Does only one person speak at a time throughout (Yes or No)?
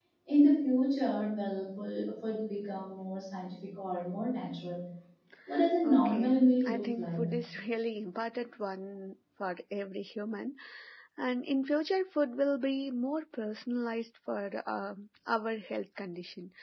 No